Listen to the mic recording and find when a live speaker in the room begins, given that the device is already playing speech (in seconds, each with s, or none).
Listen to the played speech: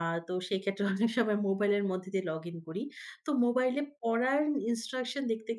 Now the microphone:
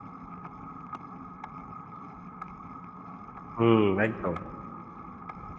3.6 s